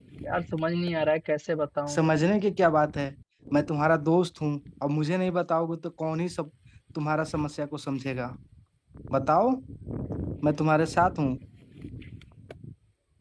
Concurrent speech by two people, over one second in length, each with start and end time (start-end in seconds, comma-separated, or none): none